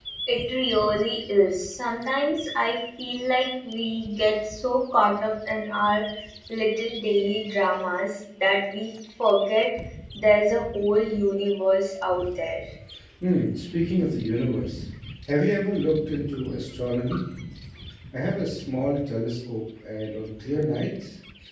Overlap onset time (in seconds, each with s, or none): none